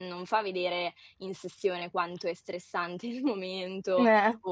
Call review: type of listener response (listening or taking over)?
listening